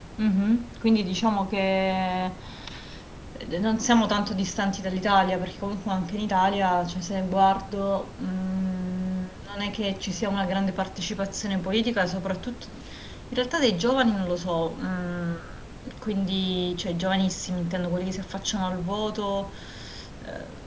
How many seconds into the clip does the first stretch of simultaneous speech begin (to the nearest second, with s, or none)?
none